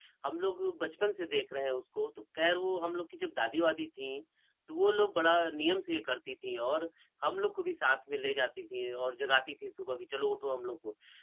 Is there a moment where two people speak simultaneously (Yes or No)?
No